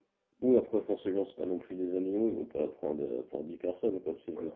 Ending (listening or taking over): listening